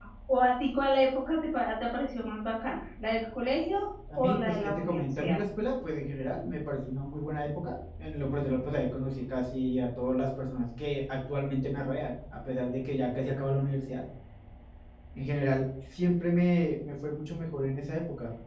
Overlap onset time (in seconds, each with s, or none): 4.1 s